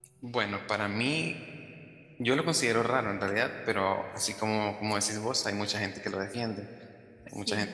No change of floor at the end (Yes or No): Yes